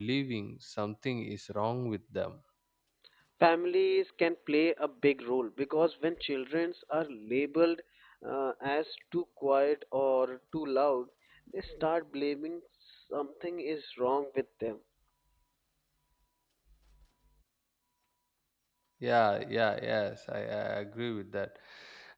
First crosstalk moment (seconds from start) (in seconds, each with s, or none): none